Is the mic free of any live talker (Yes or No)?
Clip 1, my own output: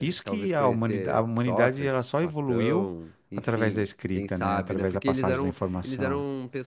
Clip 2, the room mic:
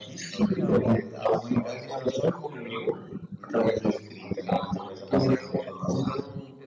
Yes